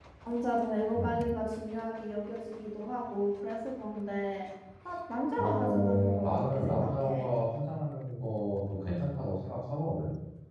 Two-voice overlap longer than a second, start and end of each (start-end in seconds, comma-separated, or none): 5.4-7.3